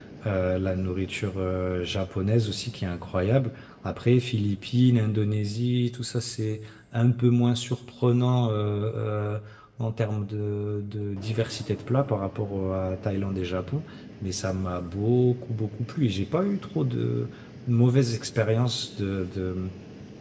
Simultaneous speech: No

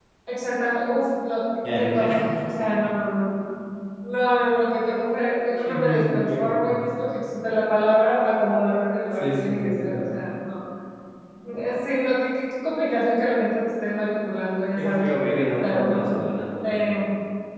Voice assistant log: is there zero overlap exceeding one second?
No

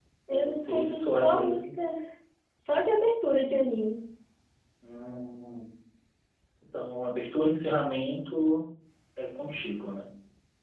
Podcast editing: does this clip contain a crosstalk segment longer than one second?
Yes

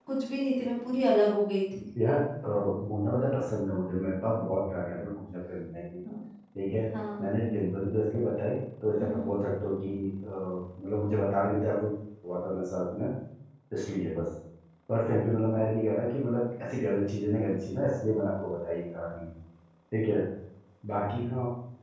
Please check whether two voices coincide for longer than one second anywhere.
No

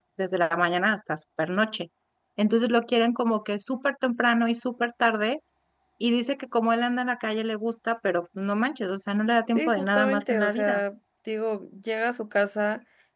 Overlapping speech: Yes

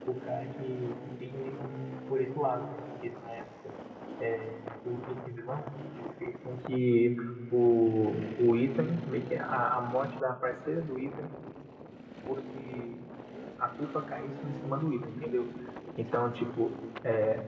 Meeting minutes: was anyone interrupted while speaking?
No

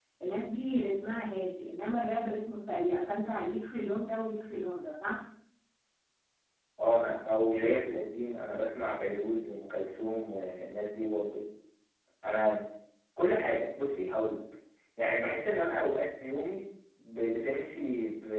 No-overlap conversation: Yes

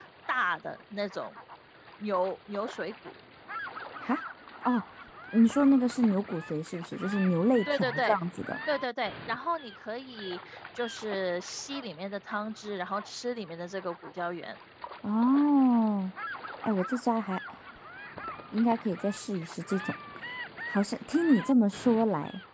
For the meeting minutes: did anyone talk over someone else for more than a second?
No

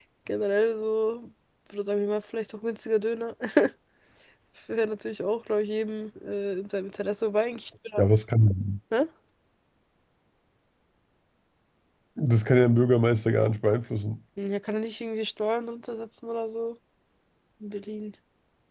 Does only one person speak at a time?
Yes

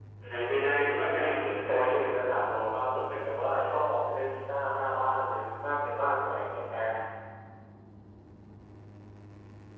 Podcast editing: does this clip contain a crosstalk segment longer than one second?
Yes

